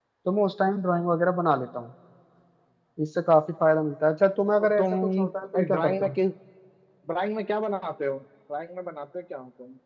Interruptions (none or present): present